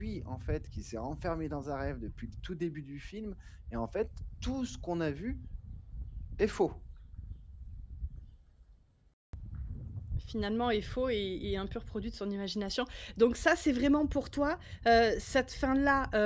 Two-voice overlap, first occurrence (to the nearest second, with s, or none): none